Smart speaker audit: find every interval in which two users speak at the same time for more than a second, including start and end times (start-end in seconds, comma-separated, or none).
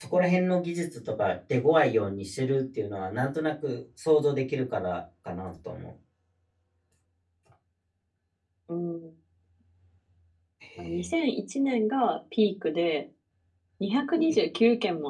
none